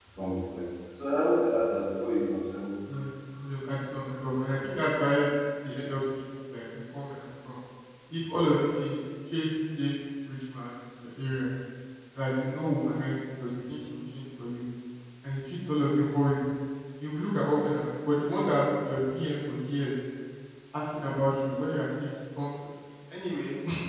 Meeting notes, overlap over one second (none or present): none